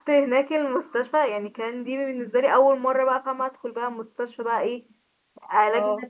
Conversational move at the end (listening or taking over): listening